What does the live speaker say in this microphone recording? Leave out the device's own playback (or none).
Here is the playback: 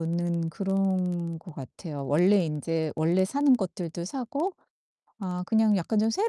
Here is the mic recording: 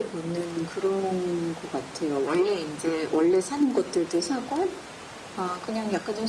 none